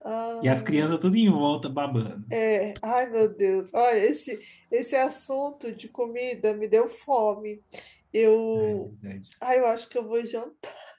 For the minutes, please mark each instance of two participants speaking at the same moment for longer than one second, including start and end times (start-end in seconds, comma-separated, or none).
none